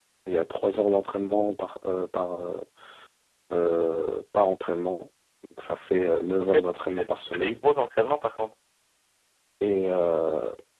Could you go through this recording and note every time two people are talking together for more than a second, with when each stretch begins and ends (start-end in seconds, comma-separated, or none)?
6.4-7.6